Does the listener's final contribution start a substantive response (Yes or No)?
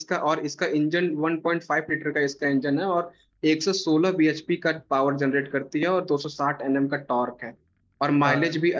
No